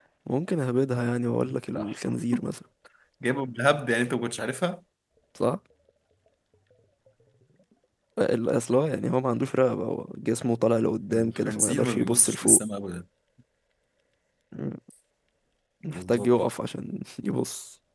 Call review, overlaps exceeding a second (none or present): present